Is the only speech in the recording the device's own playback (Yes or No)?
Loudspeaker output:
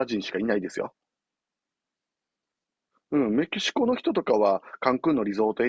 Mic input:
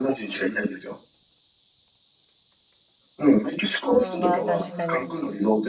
No